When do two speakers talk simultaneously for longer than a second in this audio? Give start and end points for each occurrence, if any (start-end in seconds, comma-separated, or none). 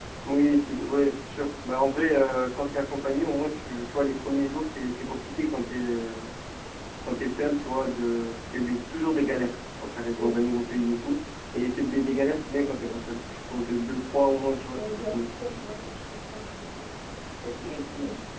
none